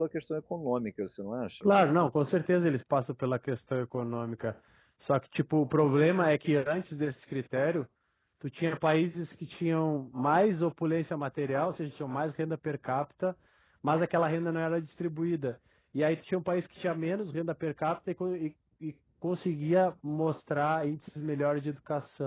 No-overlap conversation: Yes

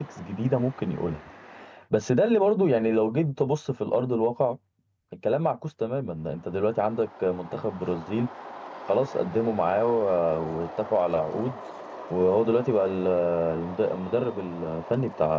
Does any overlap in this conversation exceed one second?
No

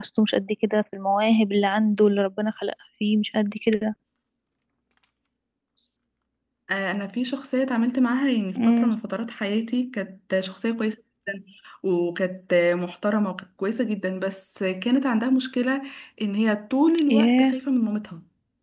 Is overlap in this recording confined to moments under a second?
Yes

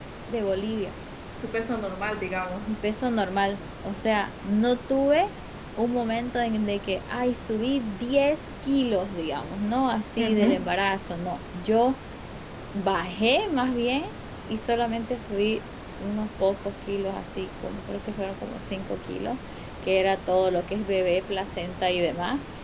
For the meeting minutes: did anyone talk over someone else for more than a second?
No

